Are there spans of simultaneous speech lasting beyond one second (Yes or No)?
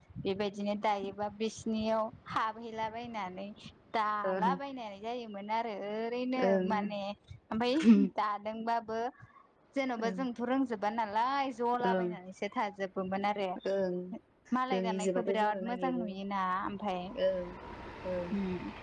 Yes